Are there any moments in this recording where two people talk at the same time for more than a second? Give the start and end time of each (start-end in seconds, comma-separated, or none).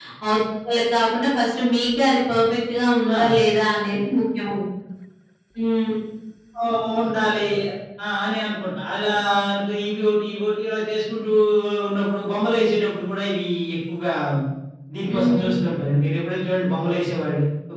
none